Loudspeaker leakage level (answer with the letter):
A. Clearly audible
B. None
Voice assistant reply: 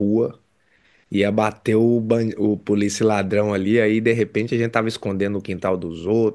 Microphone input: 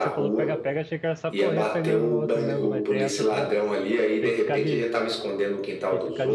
A